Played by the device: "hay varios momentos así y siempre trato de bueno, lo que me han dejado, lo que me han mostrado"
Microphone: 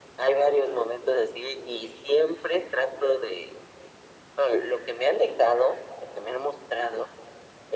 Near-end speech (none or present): none